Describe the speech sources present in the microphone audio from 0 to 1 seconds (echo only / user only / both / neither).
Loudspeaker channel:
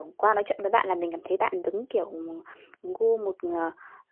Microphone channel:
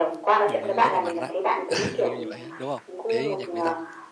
both